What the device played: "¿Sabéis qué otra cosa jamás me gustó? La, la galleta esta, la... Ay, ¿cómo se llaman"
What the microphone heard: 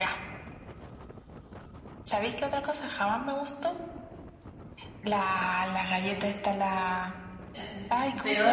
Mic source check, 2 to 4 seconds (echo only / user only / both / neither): echo only